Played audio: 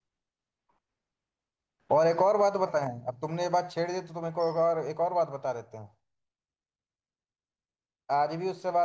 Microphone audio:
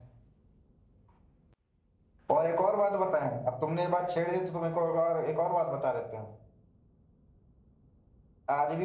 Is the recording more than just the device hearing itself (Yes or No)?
No